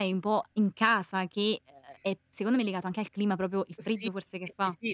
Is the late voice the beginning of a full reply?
Yes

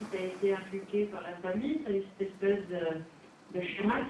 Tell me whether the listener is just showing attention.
Yes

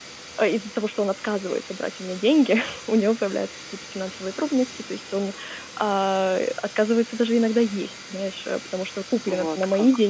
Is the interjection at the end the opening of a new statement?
No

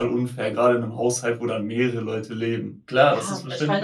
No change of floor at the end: No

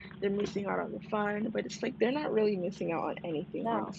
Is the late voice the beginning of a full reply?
No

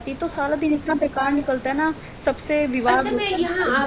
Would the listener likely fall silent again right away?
No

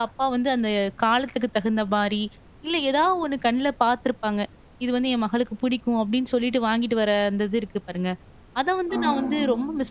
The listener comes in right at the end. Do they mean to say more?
No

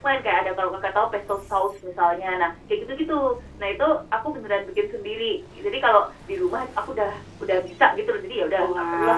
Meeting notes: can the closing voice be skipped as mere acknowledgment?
No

